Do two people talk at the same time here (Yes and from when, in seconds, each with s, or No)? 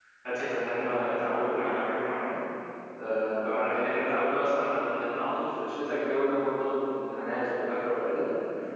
No